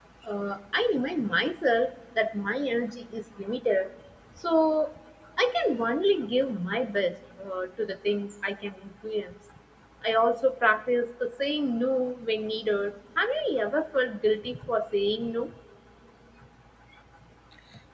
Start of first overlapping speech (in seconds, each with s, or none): none